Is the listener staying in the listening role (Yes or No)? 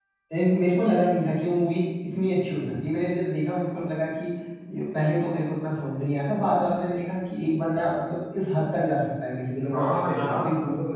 No